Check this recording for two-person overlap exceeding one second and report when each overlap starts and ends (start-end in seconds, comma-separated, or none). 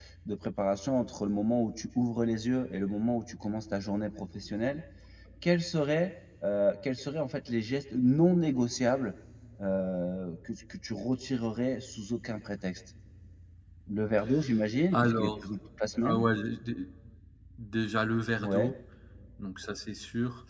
none